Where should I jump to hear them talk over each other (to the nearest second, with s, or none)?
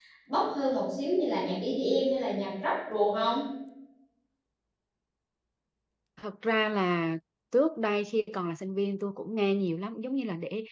none